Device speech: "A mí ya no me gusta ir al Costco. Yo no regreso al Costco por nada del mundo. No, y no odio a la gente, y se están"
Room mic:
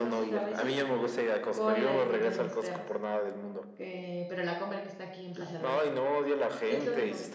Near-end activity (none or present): present